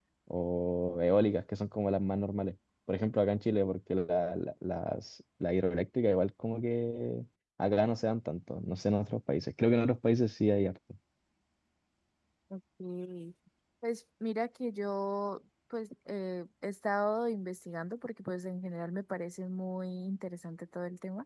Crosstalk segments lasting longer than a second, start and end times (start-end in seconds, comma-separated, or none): none